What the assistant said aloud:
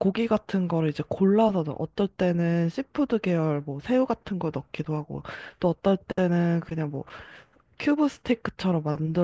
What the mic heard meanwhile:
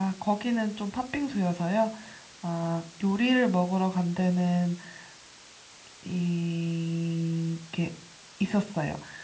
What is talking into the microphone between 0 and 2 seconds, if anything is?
user only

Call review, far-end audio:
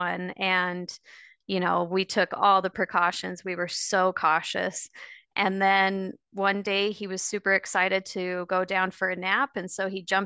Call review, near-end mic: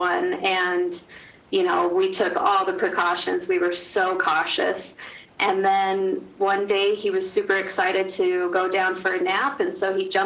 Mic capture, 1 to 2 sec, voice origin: echo only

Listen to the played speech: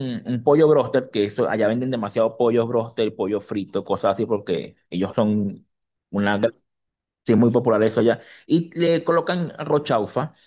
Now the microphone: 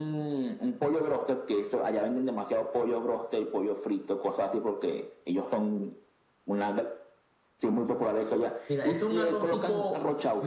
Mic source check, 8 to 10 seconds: both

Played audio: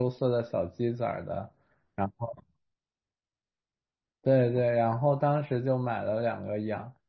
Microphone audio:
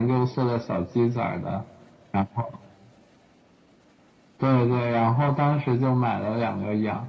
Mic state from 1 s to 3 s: echo only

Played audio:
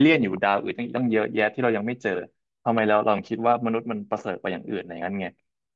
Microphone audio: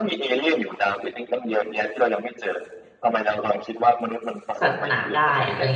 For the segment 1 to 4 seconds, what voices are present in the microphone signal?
echo only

